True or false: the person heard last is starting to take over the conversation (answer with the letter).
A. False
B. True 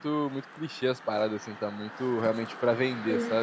B